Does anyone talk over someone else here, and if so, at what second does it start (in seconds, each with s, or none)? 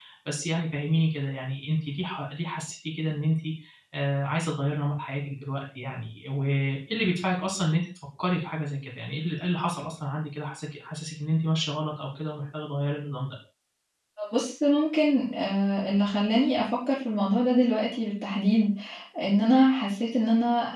none